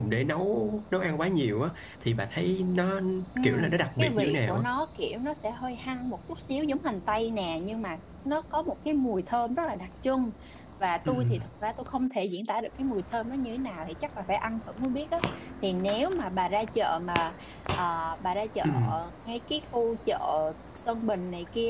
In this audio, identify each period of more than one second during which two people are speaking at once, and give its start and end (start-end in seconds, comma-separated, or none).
3.4-4.6